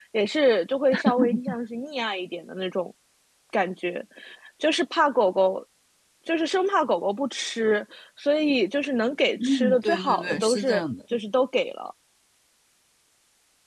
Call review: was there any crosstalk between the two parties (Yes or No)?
Yes